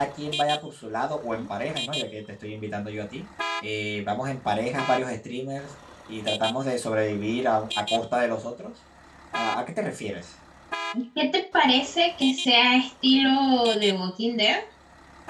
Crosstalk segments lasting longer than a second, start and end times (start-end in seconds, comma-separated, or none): none